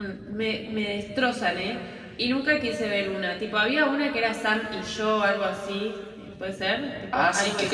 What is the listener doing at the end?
taking over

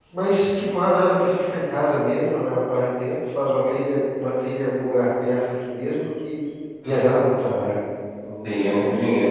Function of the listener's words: taking over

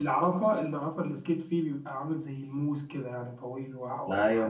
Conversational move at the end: taking over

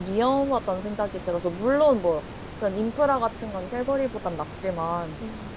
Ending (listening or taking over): listening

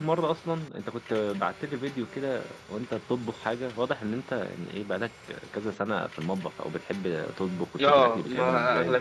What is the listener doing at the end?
taking over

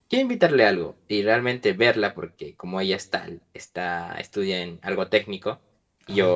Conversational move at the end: listening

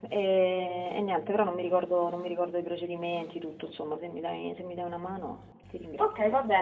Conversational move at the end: taking over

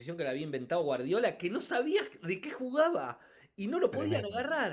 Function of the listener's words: listening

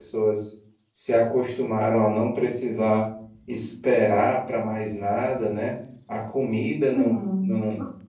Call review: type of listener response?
listening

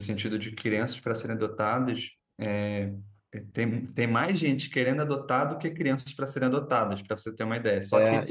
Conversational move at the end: taking over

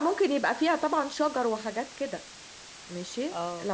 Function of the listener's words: listening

